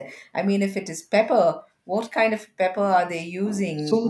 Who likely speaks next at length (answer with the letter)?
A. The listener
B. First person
A